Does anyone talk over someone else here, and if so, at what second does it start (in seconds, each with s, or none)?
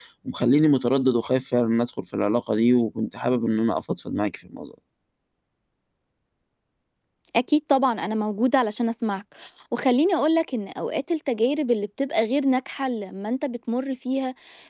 none